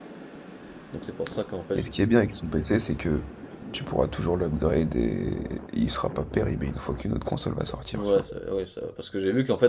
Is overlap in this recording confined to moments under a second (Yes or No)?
Yes